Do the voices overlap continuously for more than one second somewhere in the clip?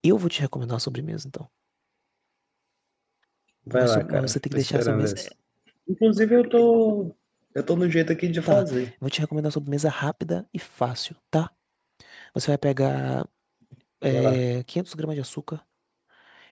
Yes, from 3.7 s

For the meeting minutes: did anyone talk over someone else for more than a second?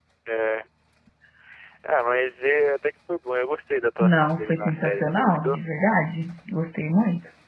Yes, from 4.0 s

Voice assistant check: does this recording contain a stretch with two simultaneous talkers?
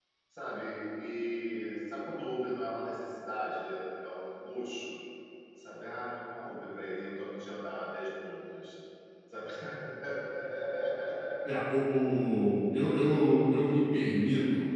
No

